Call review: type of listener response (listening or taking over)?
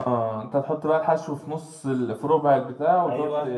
taking over